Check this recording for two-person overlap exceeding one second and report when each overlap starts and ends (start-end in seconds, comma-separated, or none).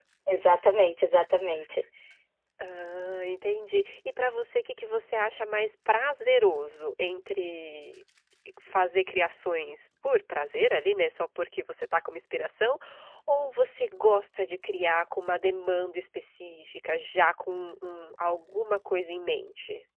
none